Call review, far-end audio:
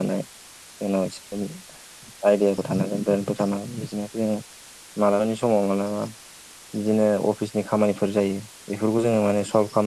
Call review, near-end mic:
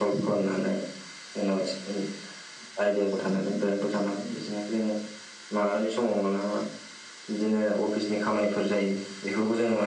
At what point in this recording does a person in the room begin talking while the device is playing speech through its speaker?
none

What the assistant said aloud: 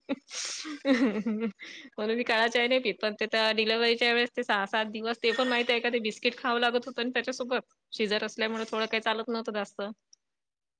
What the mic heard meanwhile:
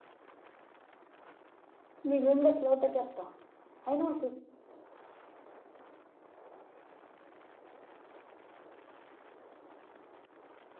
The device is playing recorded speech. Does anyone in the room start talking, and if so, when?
2.1 s

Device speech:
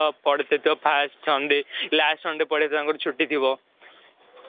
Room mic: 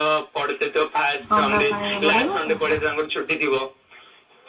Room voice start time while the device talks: 1.3 s

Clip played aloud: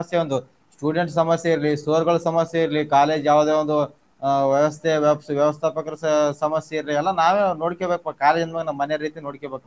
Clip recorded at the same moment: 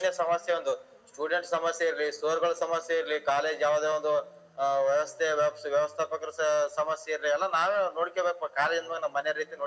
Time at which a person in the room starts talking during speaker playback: none

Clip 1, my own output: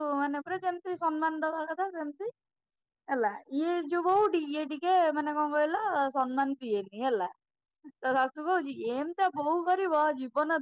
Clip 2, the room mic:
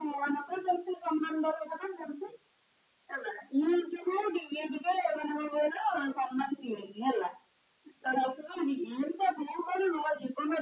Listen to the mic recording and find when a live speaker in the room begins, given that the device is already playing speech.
none

